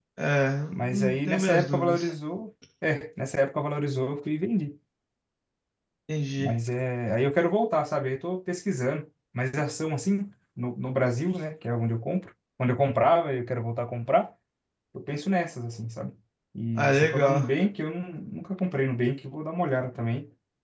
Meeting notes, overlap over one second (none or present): present